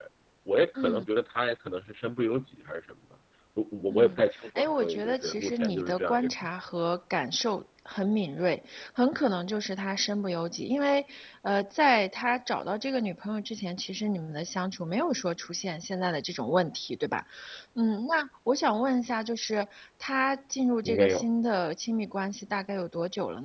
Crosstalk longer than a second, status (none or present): present